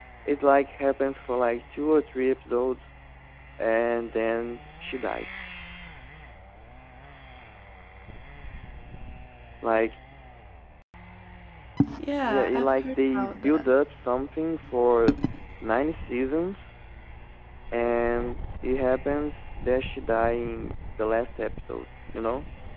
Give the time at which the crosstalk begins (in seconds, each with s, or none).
12.2 s